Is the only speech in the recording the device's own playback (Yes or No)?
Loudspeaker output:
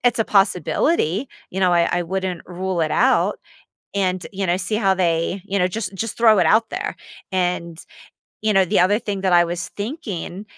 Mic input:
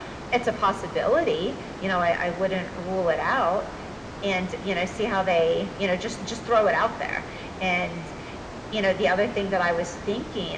Yes